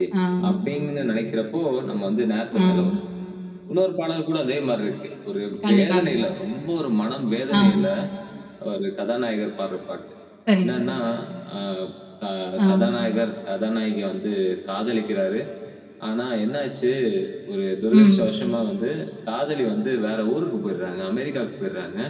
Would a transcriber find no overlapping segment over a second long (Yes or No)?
Yes